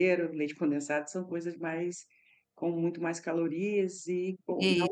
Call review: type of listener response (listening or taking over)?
listening